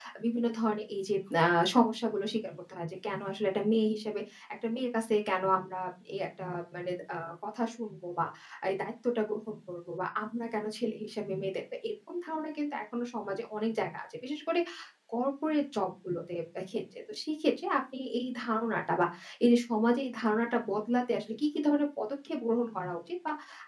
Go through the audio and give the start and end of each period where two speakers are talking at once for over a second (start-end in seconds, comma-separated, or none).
none